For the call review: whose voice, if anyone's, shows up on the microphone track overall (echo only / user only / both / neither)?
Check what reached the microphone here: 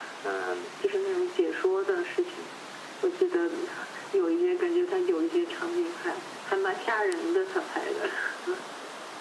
echo only